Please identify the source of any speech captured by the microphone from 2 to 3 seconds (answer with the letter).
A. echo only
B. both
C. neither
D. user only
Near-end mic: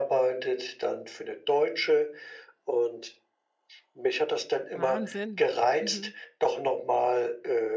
A